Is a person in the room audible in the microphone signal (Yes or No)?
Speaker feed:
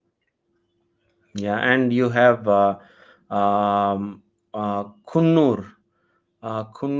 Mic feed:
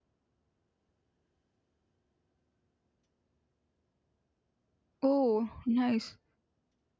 Yes